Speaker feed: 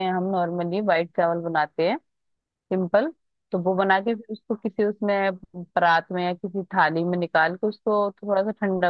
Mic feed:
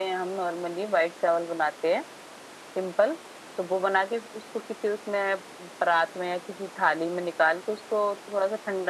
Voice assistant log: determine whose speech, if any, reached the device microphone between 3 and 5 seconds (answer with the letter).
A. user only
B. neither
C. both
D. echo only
D